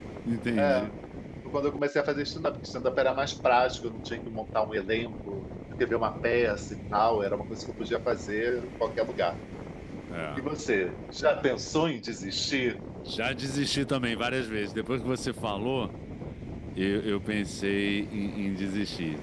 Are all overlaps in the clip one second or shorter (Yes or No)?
Yes